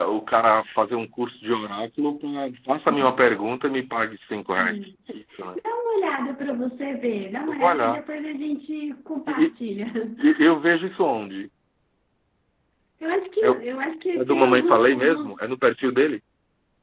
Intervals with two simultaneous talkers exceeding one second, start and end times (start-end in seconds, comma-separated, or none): 14.2-15.4